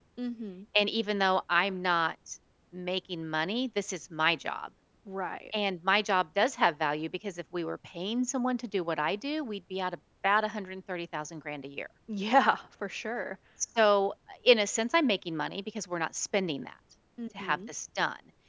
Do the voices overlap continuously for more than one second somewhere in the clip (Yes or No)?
No